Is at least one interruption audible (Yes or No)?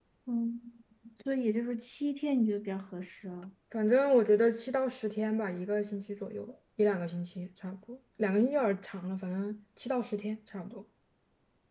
No